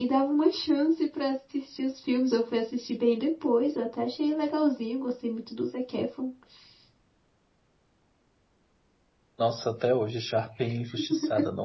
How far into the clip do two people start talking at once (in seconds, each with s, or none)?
none